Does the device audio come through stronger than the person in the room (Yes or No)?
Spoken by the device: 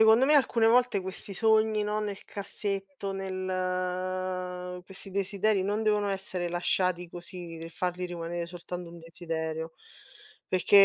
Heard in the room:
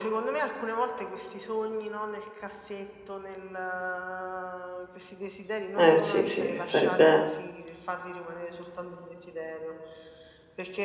No